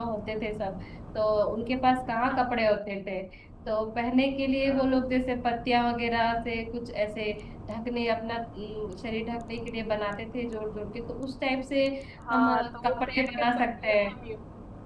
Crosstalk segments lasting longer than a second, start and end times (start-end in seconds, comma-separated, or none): 12.3-14.1